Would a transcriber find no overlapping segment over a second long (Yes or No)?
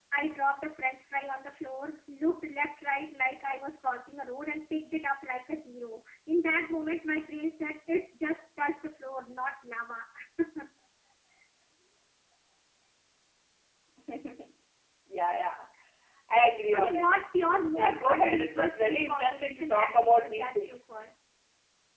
No